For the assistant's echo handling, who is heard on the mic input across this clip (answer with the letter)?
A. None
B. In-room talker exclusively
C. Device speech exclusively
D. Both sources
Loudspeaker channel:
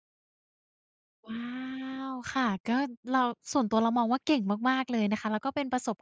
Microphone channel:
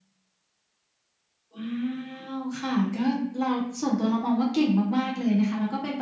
C